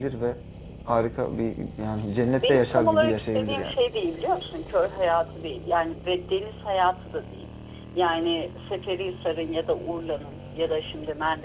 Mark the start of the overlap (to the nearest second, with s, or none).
2 s